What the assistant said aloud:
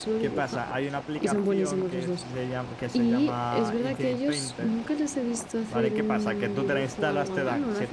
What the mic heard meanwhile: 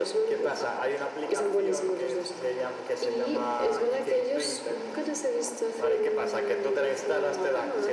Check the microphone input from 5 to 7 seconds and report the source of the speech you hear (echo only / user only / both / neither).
echo only